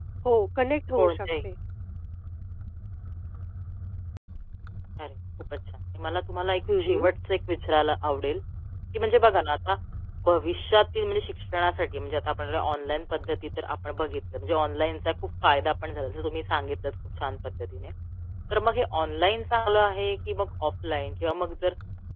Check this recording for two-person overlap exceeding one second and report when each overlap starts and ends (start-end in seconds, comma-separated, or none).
none